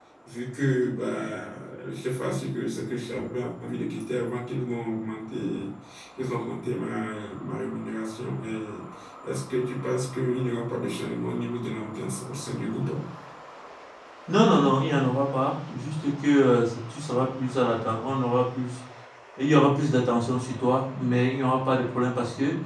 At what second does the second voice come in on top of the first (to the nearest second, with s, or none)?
none